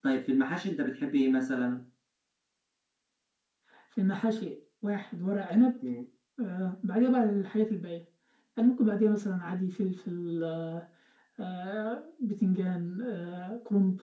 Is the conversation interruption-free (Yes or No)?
Yes